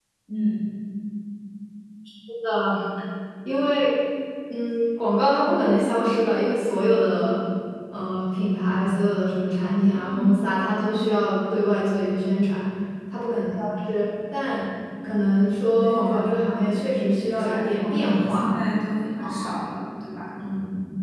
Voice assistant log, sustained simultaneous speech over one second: present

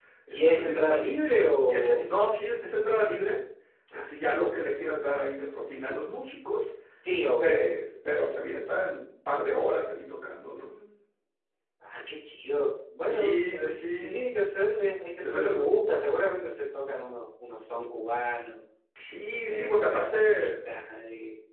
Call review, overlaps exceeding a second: present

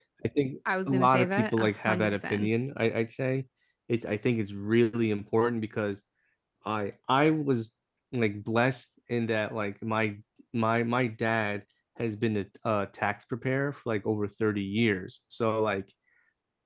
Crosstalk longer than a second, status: present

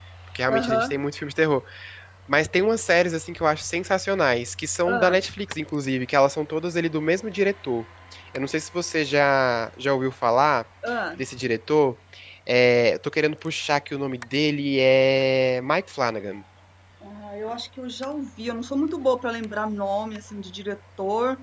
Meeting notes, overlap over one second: none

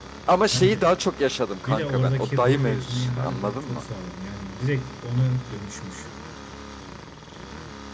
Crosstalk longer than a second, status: present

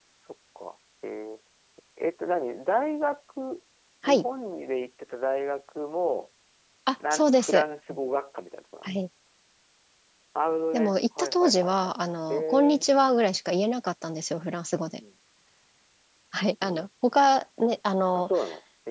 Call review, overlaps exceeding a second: present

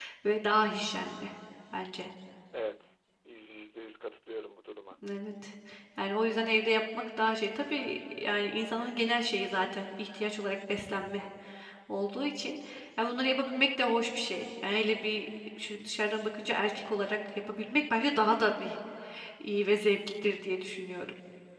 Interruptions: none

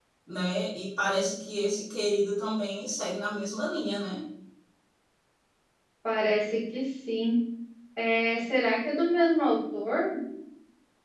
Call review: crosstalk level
none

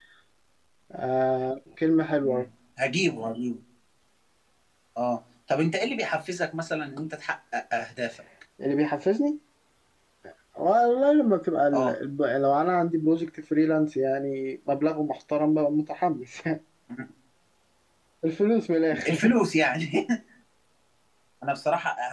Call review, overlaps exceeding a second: none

